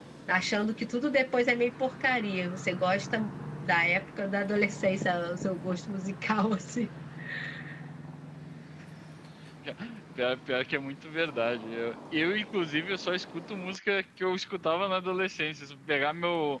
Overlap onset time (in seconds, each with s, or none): none